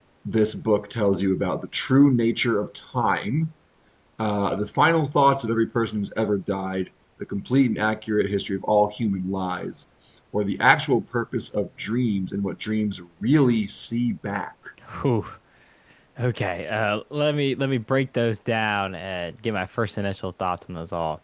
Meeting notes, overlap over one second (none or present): none